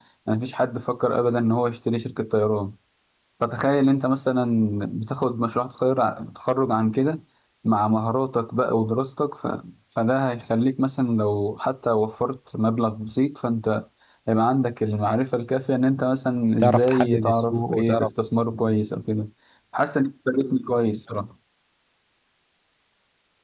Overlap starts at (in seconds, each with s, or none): 16.6 s